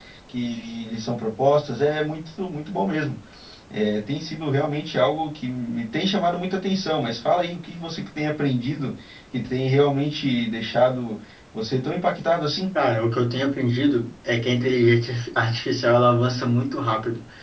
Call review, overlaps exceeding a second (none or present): none